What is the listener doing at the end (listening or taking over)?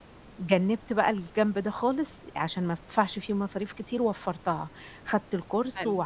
listening